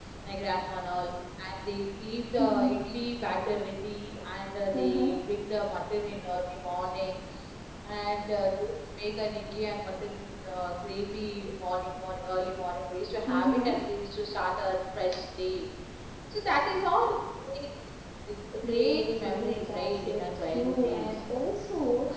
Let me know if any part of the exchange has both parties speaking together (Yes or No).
Yes